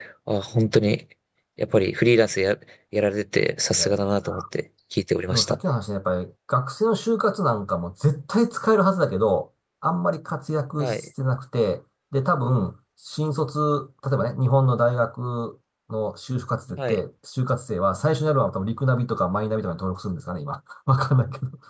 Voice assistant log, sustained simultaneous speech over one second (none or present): none